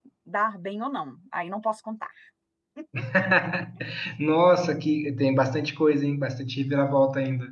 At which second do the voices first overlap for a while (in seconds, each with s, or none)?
none